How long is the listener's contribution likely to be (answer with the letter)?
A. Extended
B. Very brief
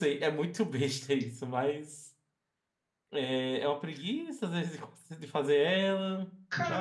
A